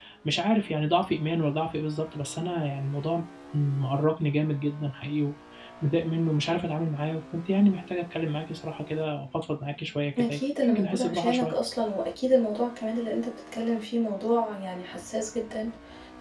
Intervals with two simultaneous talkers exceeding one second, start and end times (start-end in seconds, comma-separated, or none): 10.2-11.5